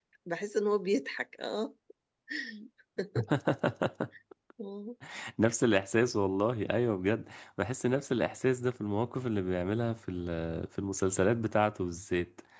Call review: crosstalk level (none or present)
none